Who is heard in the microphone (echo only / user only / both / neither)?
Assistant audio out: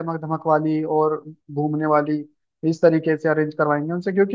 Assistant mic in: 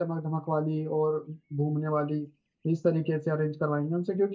echo only